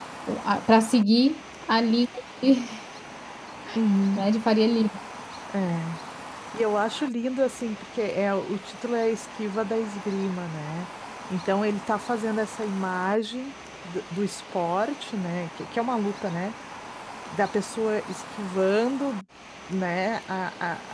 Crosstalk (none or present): none